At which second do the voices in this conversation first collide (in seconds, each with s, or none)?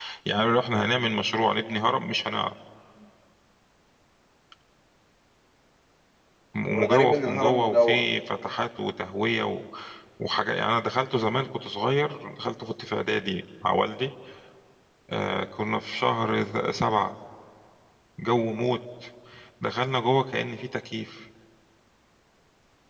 6.7 s